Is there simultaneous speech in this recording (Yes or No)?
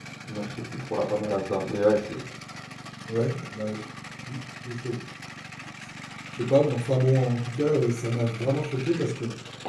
No